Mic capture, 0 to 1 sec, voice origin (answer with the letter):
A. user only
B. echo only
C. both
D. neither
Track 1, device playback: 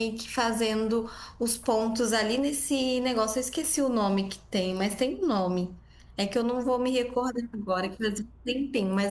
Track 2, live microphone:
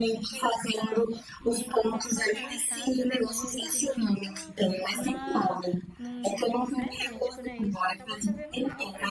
C